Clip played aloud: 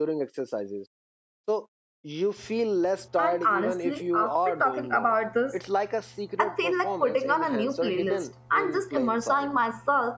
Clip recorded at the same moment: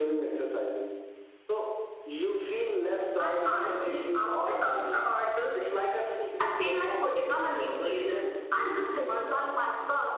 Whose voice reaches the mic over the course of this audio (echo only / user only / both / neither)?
echo only